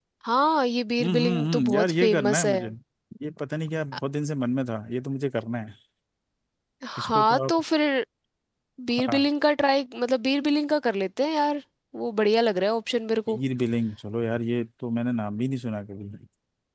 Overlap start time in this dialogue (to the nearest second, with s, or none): 1 s